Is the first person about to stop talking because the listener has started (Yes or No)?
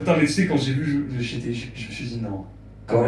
Yes